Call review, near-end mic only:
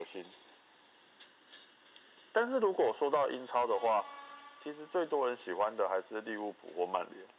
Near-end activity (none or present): none